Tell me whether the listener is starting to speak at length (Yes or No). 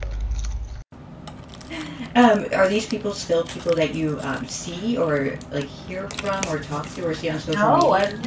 Yes